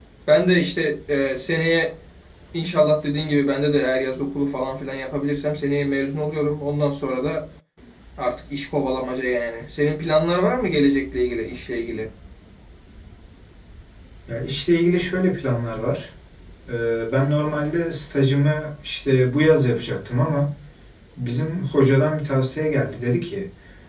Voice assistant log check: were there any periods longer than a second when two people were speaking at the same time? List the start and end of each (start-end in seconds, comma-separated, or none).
none